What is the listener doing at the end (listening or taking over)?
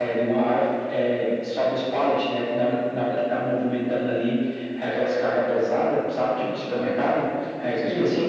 listening